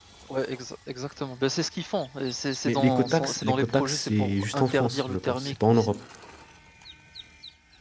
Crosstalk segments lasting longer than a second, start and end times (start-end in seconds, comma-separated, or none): 2.6-5.9